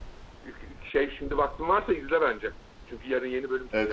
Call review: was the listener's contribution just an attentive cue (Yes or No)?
No